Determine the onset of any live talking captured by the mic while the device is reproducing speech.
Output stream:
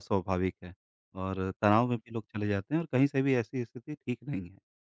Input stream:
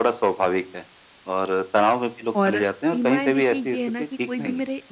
2 s

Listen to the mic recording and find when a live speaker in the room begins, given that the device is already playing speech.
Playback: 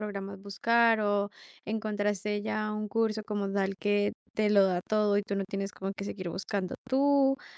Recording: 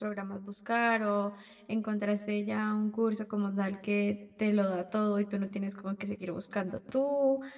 none

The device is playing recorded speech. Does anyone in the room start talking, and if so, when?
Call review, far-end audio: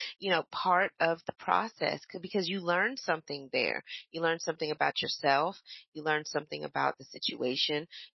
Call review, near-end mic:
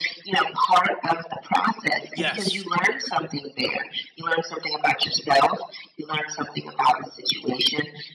2 s

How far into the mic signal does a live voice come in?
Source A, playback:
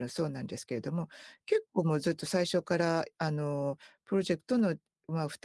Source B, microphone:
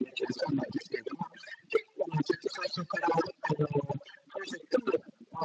none

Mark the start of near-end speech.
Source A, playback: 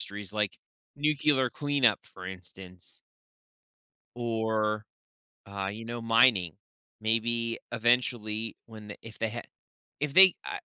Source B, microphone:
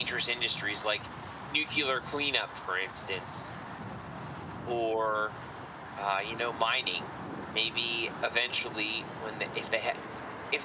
none

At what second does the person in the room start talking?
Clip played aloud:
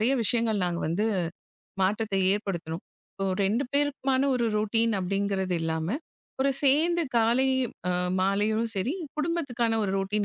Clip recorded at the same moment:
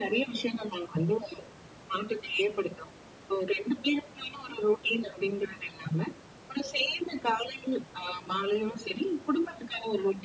none

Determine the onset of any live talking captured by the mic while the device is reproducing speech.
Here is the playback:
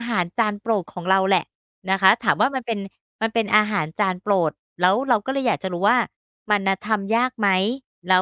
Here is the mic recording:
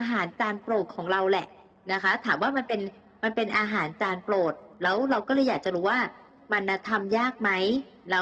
none

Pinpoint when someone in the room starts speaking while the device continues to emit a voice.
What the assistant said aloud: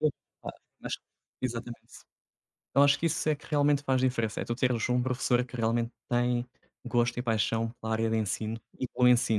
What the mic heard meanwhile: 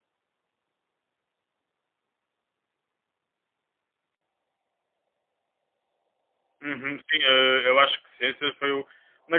7 s

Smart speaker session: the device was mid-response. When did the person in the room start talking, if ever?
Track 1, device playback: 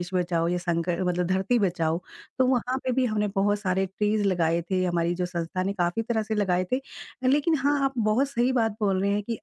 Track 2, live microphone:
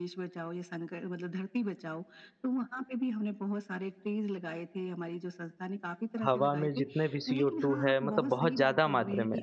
6 s

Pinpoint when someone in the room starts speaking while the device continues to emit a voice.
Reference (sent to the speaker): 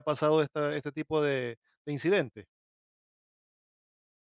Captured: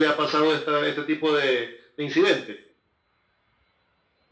none

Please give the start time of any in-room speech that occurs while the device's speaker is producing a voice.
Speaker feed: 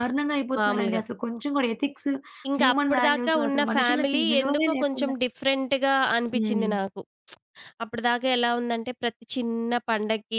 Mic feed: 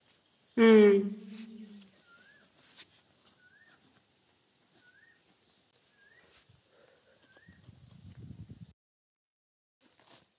1 s

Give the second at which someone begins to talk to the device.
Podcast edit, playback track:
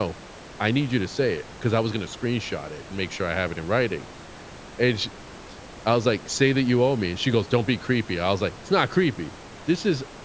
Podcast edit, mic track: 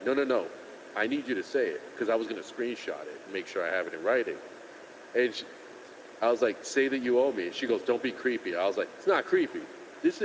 none

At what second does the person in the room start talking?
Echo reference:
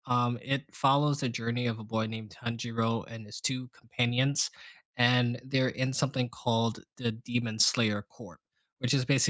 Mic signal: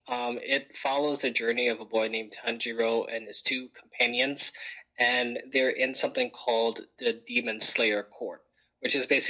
none

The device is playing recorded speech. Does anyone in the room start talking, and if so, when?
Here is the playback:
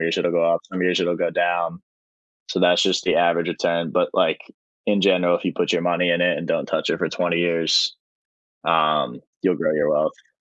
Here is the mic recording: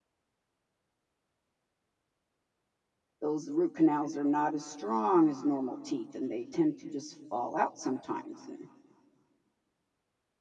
3 s

